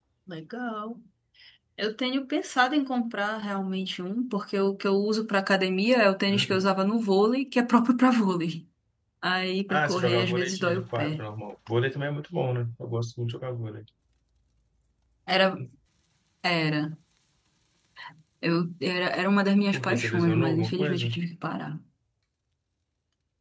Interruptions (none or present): present